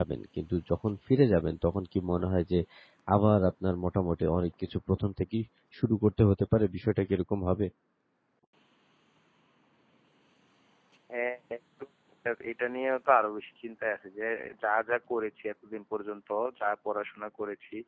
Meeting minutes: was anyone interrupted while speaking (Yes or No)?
No